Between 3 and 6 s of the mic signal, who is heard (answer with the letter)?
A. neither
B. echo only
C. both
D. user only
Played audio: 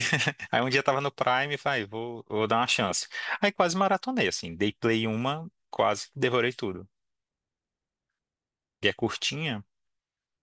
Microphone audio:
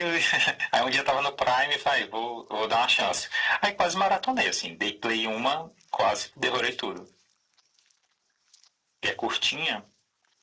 B